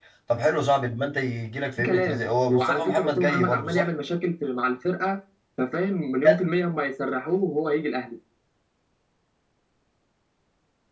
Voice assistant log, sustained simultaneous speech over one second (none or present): present